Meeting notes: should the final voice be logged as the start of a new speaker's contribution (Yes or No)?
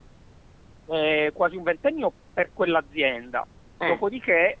No